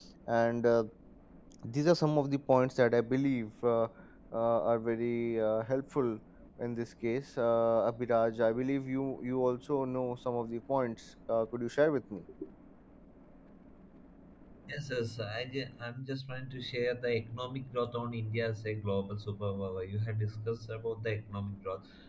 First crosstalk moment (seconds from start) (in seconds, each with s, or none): none